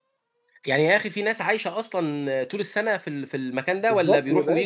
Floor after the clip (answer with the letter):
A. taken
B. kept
A